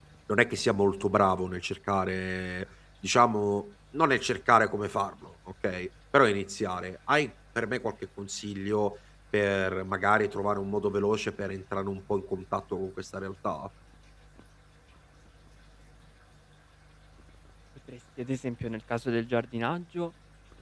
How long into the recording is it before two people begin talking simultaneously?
none

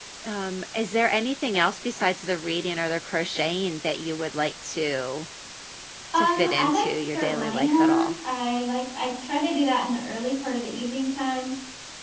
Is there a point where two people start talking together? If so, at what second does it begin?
6.2 s

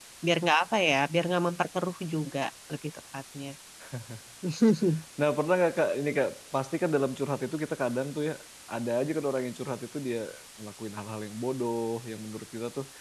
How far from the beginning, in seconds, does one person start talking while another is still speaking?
none

